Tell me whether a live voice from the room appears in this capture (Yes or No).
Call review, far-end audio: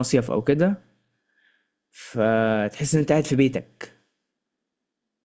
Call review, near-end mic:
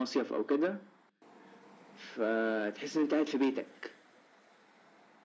No